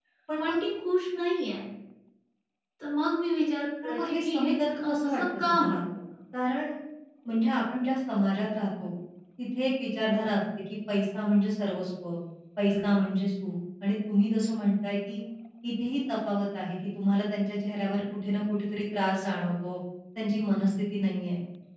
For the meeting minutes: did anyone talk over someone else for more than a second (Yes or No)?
Yes